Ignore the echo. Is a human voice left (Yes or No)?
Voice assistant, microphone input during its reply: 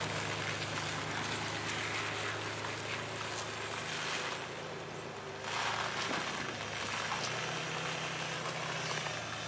No